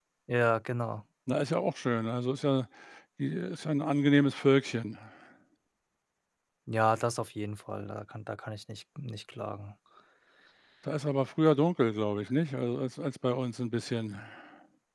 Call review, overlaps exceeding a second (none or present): none